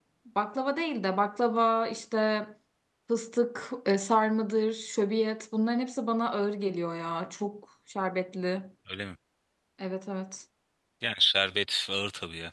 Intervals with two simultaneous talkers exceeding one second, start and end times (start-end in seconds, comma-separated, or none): none